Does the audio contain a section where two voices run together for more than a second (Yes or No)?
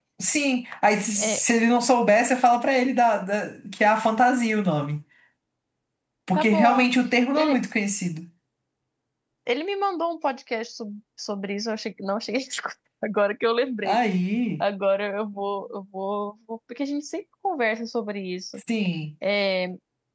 No